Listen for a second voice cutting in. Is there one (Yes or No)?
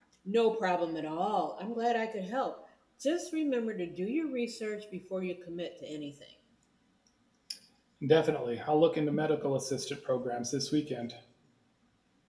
No